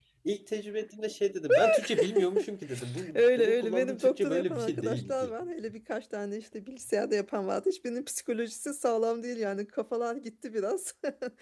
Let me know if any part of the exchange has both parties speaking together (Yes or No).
Yes